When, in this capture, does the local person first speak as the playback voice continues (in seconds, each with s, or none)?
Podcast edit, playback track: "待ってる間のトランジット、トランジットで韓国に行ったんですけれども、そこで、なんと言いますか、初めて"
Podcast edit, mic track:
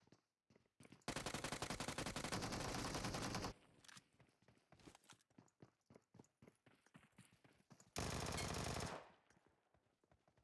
none